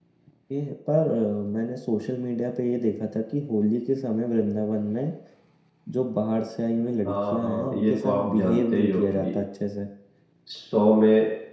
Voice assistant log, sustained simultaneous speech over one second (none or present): present